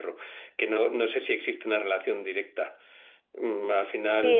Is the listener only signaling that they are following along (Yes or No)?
No